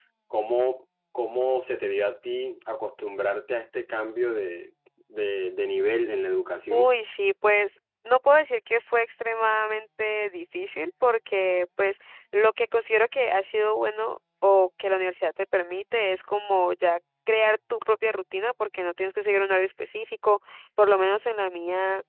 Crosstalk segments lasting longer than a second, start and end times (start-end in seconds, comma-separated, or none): none